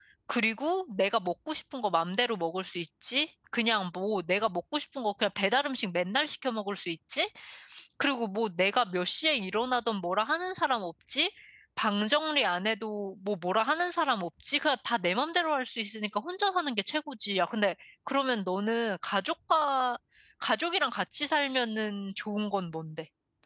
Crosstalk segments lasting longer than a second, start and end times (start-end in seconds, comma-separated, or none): none